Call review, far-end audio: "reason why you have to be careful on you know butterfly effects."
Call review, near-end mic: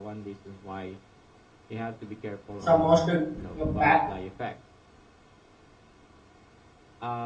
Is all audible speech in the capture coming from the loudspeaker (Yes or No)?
No